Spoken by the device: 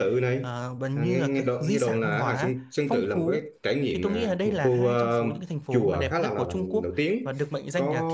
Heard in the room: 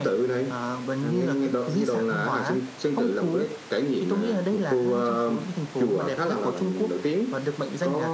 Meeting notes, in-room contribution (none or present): none